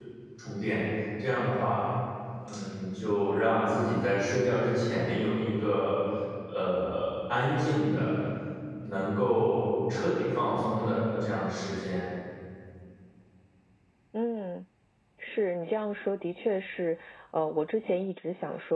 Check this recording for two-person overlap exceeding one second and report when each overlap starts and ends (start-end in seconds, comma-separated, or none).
none